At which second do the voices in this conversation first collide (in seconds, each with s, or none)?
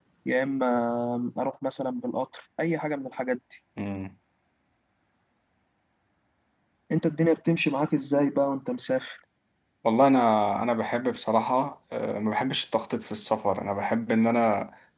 none